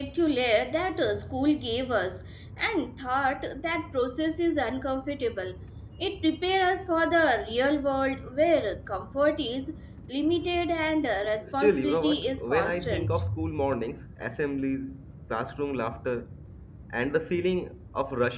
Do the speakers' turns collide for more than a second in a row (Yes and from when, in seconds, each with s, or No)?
Yes, from 11.4 s